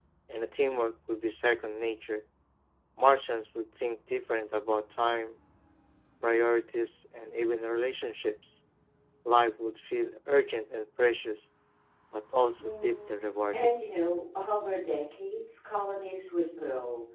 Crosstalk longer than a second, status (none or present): present